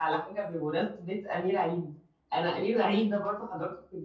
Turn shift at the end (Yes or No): No